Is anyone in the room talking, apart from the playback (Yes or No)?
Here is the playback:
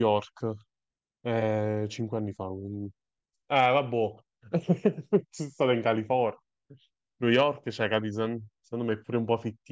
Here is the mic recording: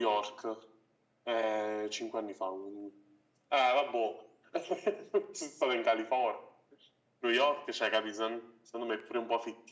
No